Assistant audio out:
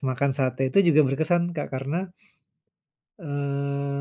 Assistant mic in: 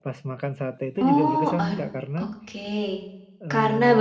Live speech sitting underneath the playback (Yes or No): No